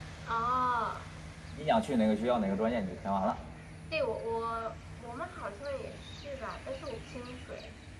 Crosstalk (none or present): none